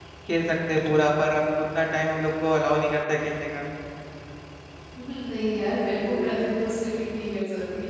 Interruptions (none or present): none